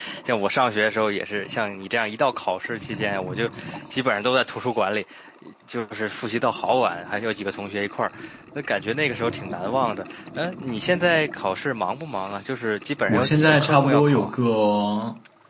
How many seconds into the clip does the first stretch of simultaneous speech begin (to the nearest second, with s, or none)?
13 s